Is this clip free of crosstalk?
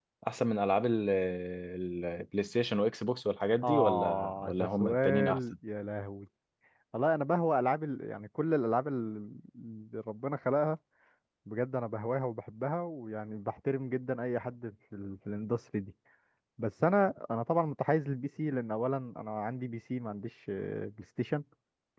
No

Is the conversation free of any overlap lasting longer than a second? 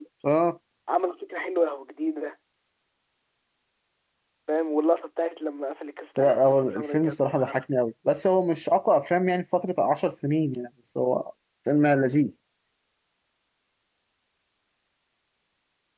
No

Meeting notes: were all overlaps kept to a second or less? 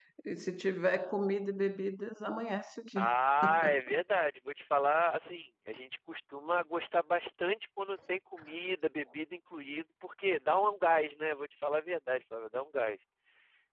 Yes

